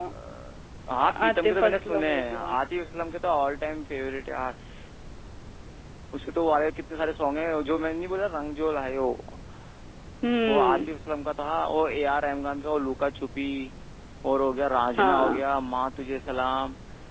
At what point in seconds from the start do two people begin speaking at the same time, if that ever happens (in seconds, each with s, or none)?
1.3 s